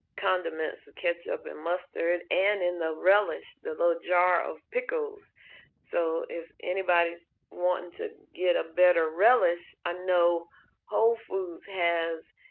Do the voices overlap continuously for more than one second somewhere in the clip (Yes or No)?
No